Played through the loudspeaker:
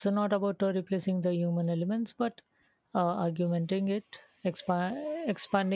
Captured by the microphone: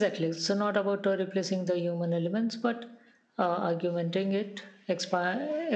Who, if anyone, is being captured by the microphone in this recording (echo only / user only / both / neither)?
echo only